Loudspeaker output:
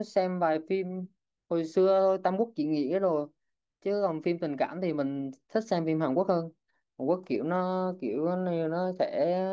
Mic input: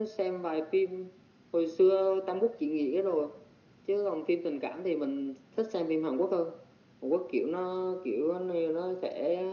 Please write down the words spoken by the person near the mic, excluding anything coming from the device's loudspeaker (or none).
none